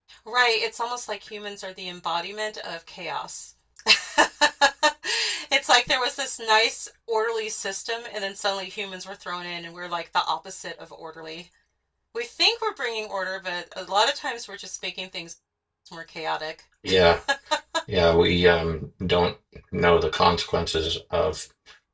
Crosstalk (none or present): none